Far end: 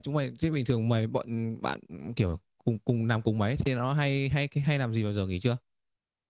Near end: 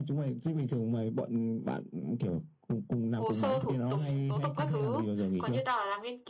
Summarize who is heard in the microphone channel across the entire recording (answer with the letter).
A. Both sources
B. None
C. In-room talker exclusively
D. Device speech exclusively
A